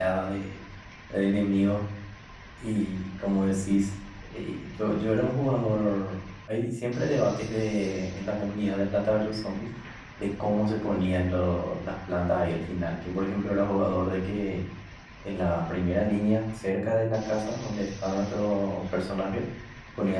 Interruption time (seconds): none

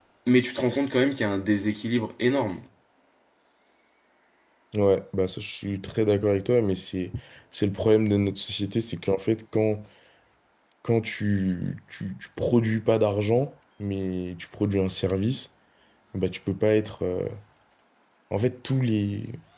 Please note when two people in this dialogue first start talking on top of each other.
none

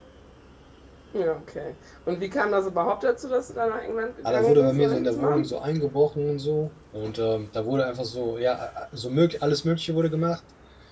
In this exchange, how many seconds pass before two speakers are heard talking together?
4 s

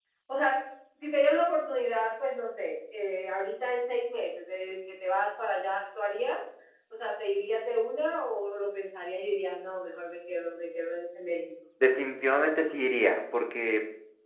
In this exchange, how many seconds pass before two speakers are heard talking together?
none

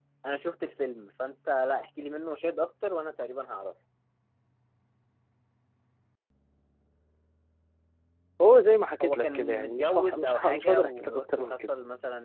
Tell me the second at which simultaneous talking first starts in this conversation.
9 s

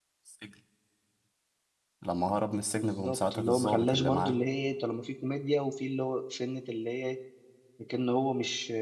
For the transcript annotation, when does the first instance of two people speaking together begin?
3 s

